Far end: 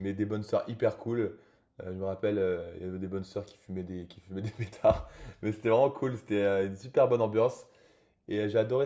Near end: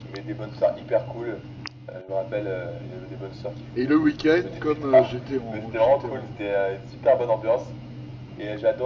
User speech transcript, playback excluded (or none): Et le week-end, comme euh, j'étais en, j'étais en,